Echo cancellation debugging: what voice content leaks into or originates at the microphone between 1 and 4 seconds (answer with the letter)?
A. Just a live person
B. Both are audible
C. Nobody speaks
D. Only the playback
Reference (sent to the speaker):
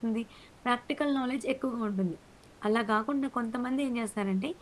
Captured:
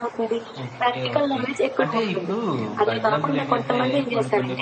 B